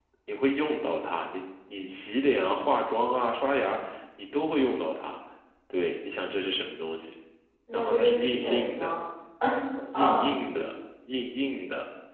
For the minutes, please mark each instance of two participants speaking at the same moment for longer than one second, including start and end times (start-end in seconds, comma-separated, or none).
7.7-9.0